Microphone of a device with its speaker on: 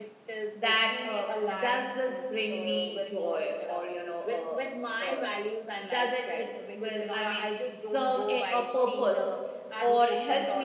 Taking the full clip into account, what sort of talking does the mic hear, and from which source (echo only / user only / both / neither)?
both